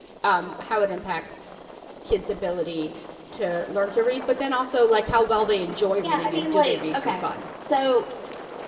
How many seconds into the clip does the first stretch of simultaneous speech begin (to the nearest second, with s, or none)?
6 s